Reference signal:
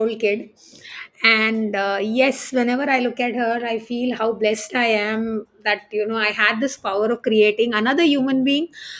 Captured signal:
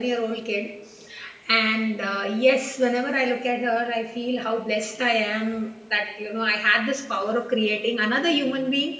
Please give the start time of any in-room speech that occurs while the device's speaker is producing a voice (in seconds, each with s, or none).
none